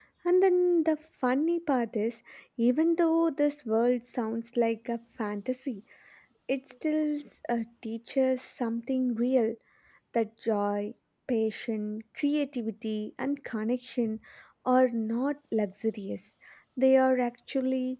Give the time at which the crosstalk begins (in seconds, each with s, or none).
none